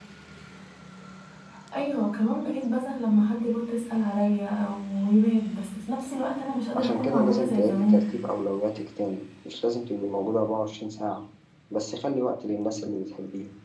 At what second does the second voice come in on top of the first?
7 s

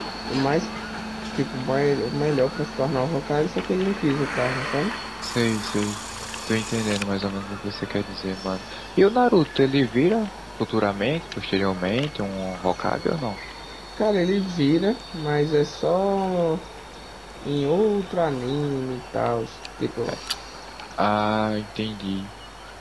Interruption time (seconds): none

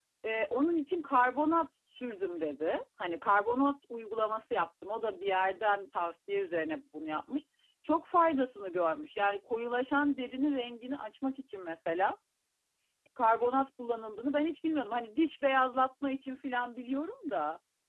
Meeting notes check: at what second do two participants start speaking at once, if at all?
none

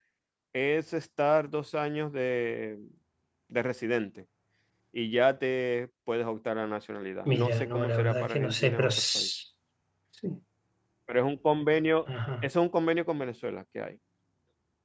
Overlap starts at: 7 s

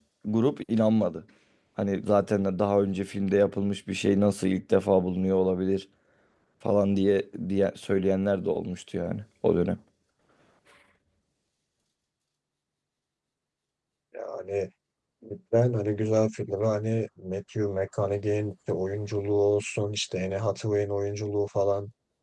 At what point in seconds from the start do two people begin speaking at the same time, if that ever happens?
none

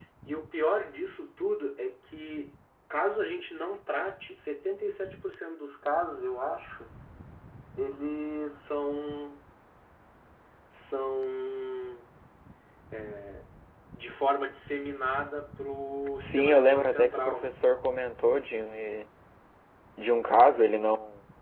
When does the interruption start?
16 s

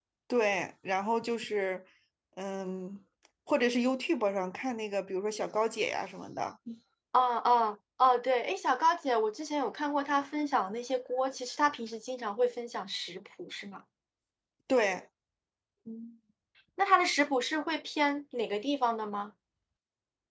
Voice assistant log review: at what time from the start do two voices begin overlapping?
none

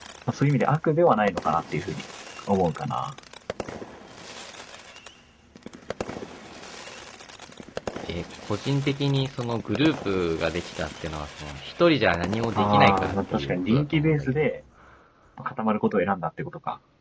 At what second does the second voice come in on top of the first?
13 s

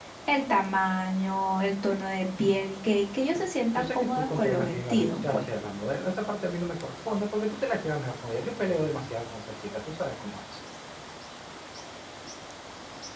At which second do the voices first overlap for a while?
4 s

